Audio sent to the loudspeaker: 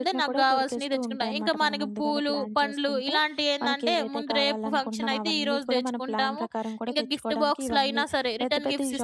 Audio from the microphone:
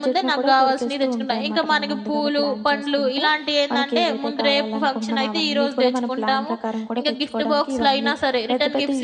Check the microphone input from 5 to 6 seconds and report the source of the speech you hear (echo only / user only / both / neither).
echo only